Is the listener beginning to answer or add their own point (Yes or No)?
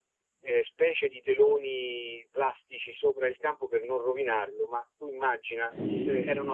No